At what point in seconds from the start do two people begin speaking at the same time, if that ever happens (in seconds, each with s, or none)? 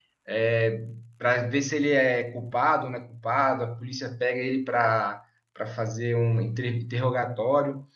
none